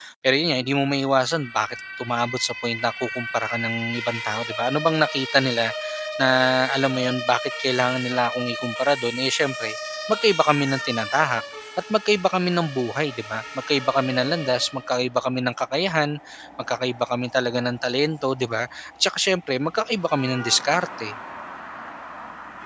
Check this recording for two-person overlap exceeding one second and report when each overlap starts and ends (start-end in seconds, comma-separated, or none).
none